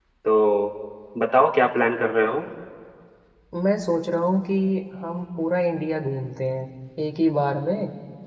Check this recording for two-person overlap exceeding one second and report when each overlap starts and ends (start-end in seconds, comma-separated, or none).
none